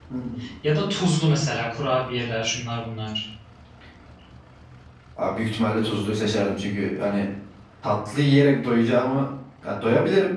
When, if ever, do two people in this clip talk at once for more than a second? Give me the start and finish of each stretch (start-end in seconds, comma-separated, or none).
none